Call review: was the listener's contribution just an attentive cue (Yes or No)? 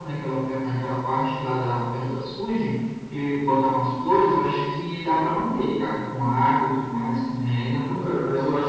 No